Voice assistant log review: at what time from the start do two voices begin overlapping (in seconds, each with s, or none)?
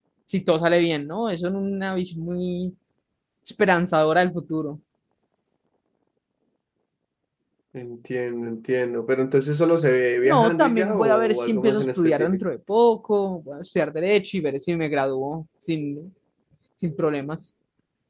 10.2 s